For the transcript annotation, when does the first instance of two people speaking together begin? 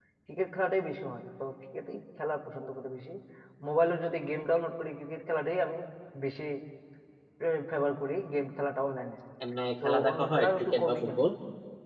9.8 s

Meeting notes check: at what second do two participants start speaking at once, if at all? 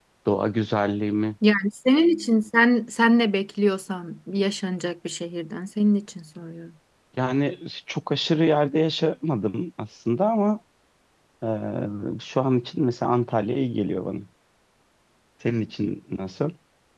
none

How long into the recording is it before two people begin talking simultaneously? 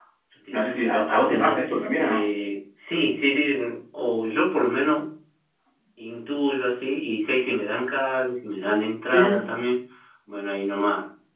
0.5 s

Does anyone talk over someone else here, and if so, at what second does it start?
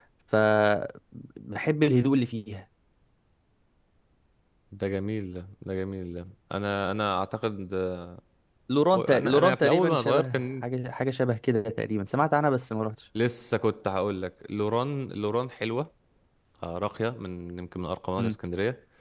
8.9 s

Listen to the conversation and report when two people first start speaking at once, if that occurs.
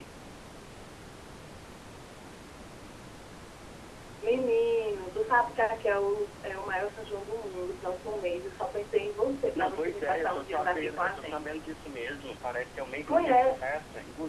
9.6 s

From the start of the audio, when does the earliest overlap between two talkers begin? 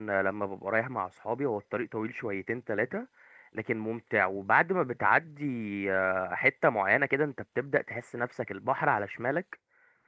none

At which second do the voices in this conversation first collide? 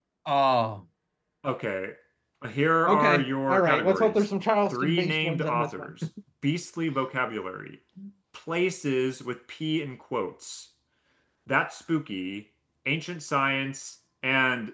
2.9 s

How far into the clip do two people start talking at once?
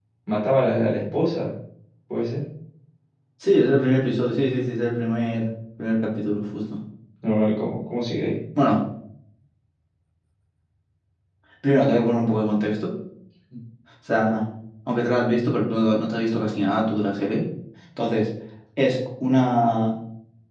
none

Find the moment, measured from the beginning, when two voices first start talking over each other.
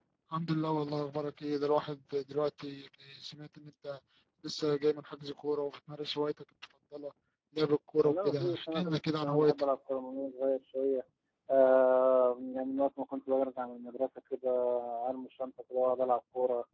8.0 s

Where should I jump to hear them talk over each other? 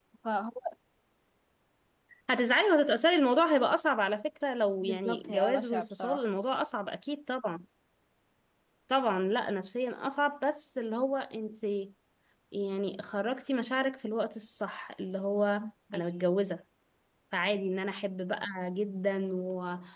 4.8 s

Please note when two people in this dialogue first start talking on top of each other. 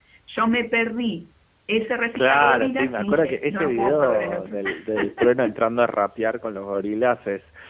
2.1 s

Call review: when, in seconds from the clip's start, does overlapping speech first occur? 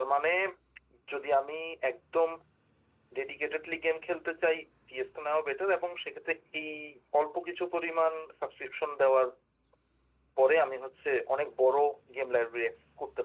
none

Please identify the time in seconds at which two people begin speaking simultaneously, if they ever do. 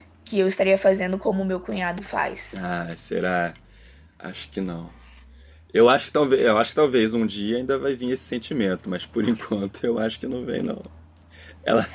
none

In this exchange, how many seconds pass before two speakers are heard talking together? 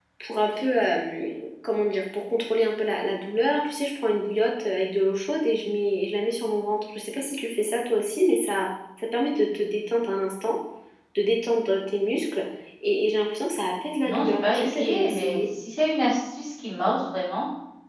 14.0 s

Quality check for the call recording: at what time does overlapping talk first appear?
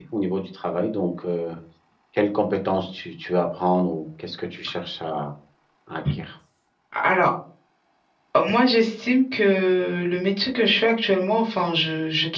none

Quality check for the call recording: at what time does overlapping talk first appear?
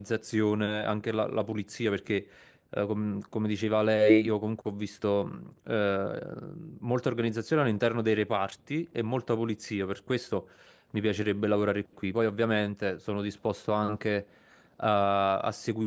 none

